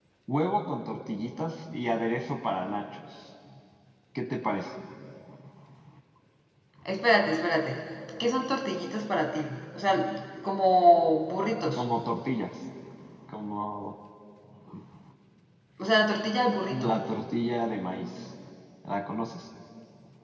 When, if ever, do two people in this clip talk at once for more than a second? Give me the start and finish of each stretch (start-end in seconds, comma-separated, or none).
none